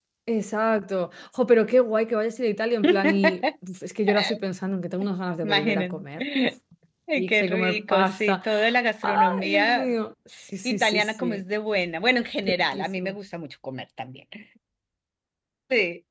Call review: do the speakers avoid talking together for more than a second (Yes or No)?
No